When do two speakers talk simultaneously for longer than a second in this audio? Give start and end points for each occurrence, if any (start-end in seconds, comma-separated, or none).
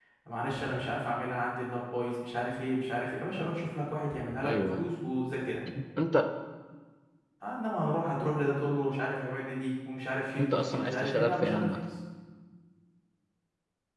10.4-11.8